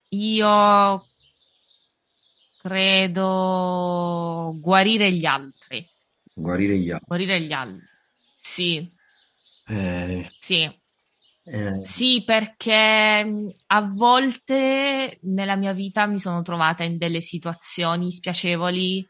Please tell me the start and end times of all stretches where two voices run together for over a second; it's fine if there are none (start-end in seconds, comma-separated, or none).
none